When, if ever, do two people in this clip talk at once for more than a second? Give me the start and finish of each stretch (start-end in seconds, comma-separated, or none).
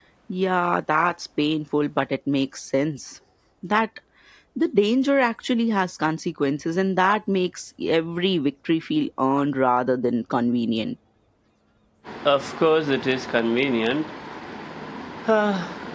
none